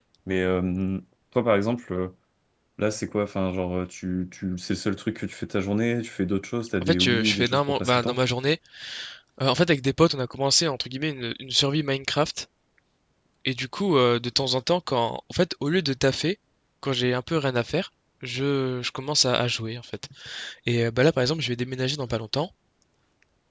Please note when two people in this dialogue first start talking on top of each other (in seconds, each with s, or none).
6.8 s